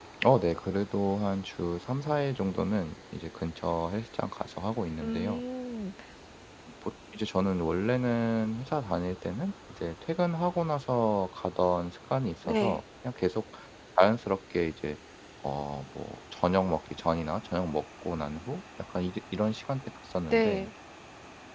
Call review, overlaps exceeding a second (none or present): none